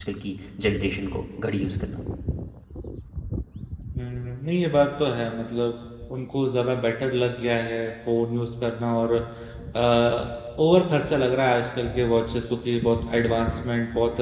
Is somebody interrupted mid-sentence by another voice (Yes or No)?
No